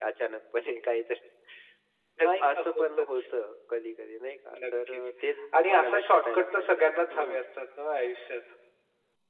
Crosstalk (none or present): present